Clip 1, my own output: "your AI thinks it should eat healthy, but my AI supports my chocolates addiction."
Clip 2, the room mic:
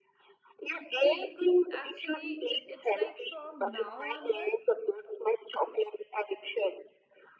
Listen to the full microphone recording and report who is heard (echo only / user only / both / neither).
both